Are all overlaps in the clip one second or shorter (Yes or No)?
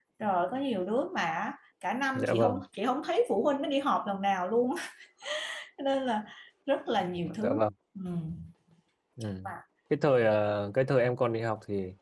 Yes